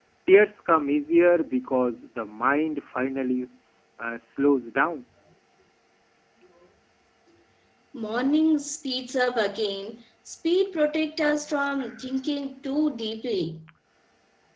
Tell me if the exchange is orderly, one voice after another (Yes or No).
Yes